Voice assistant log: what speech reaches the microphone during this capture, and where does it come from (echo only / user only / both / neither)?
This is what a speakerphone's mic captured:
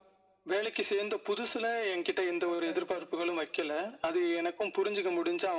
both